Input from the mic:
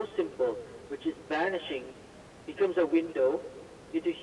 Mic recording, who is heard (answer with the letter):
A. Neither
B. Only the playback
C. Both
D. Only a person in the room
B